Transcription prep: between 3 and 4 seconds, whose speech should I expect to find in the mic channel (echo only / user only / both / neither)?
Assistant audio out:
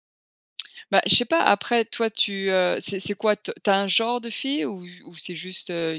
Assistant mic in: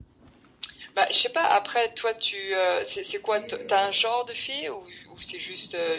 both